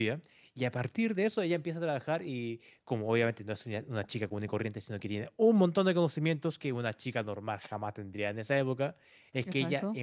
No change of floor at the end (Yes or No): Yes